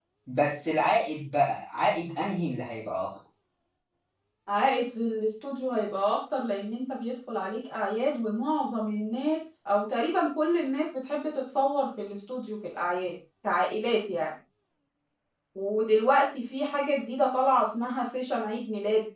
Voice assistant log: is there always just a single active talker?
Yes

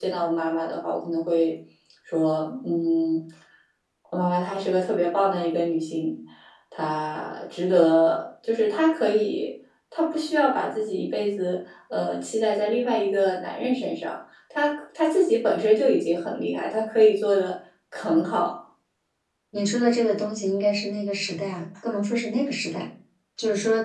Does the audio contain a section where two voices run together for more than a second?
No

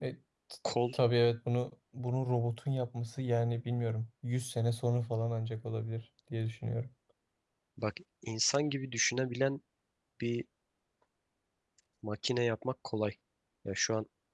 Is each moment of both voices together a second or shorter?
Yes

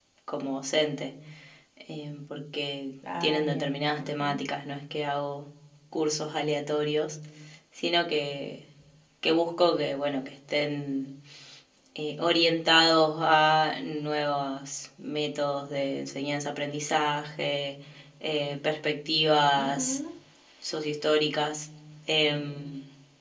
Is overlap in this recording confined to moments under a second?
No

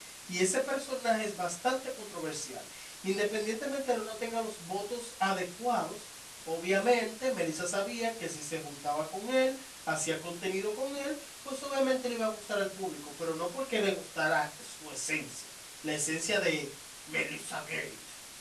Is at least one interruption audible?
No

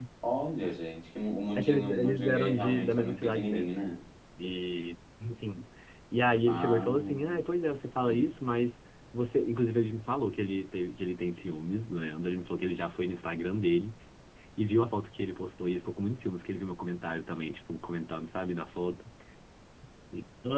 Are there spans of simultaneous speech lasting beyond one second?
Yes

